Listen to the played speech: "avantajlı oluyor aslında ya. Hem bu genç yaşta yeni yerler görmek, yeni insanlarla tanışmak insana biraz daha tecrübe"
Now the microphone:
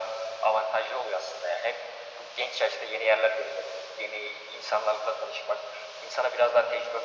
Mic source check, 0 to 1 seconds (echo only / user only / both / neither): echo only